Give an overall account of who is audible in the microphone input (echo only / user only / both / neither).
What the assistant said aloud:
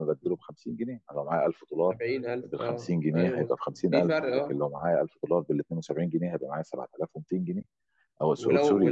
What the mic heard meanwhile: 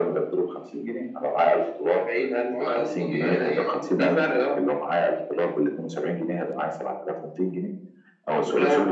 both